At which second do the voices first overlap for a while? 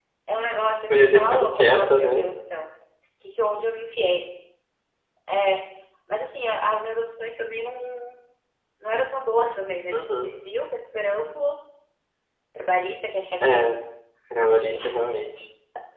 0.9 s

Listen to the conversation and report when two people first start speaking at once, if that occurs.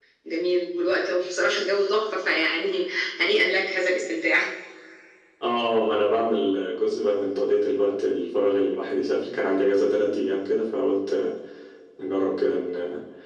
none

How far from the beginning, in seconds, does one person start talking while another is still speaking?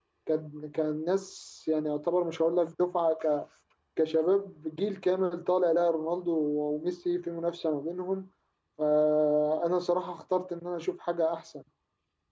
none

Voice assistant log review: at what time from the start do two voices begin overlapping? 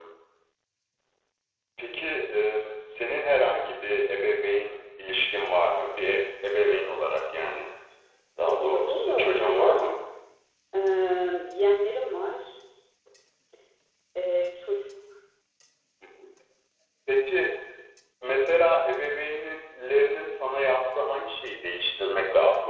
8.5 s

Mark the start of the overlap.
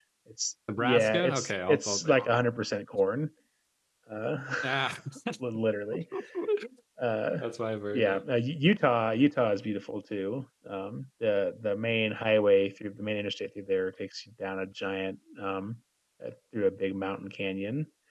0.8 s

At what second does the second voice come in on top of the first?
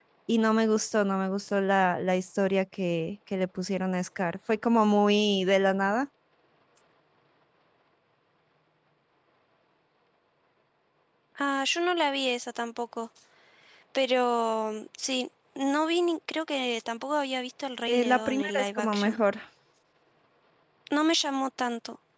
17.9 s

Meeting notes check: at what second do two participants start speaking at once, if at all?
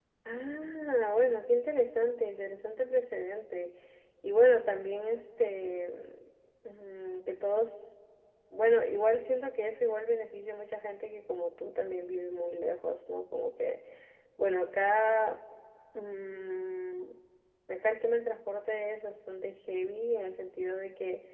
none

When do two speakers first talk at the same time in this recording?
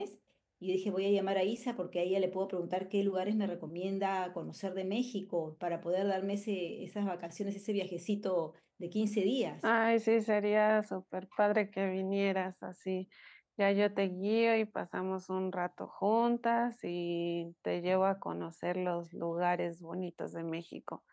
none

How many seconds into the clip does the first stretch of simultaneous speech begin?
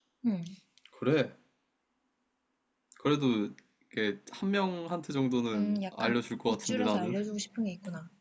5.5 s

